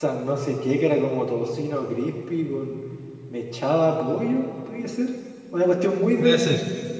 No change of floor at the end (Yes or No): Yes